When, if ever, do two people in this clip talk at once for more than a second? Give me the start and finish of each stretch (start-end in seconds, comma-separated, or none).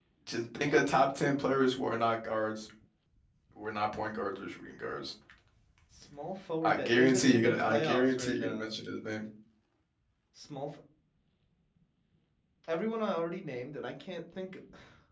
6.6-8.8